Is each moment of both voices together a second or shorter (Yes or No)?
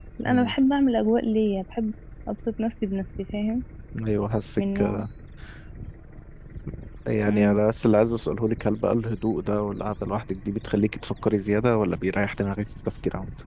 Yes